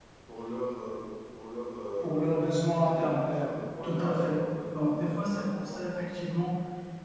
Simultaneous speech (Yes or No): Yes